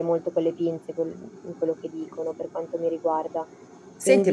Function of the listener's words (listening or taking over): taking over